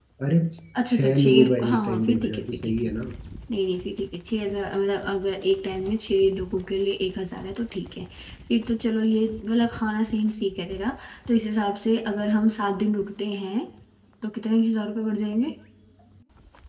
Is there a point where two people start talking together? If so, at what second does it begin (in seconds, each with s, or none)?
0.9 s